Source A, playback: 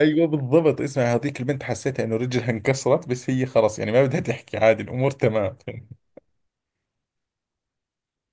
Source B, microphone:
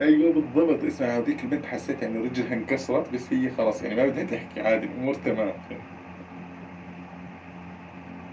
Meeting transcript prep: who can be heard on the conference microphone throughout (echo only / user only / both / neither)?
echo only